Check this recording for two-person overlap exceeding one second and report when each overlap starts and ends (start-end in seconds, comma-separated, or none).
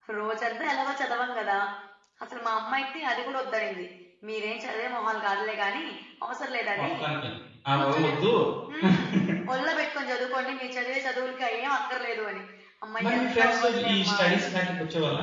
13.0-14.4